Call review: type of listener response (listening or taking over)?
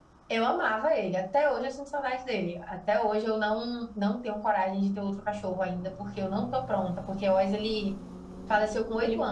listening